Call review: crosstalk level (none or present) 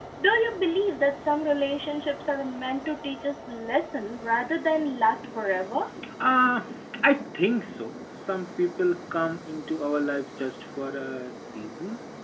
none